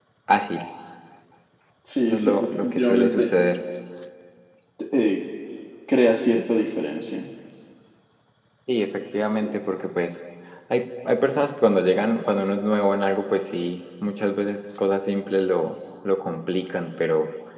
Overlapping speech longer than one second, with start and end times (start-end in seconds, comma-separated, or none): 2.0-3.3